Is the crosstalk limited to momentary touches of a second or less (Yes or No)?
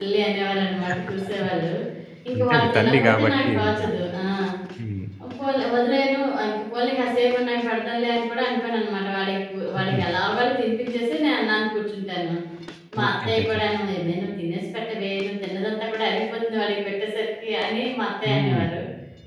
No